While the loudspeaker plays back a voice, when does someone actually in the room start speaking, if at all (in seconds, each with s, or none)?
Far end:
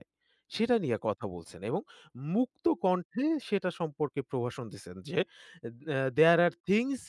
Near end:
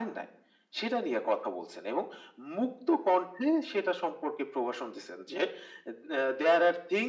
none